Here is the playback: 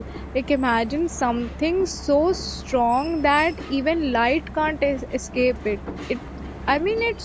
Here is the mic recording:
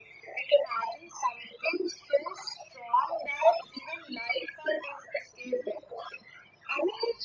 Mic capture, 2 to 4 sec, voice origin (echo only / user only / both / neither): echo only